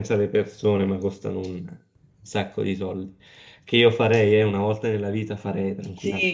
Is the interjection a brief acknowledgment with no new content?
No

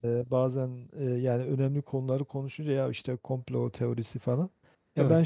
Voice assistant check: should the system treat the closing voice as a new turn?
No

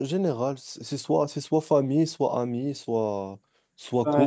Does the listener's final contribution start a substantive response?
Yes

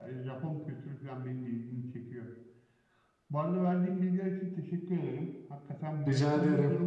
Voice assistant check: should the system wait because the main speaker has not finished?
Yes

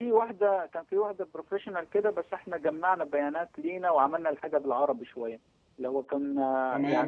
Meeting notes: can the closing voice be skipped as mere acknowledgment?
No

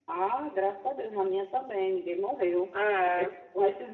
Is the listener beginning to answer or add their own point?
No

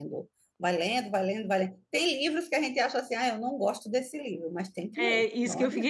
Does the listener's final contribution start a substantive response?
Yes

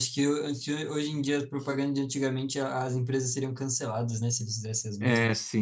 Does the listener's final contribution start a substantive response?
Yes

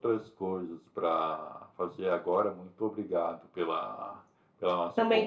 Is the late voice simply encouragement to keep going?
No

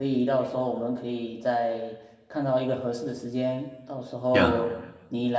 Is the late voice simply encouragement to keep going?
Yes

